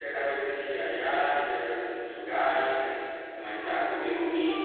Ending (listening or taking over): taking over